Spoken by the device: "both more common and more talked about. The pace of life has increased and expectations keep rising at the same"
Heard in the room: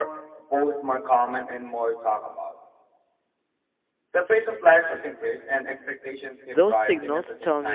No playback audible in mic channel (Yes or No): No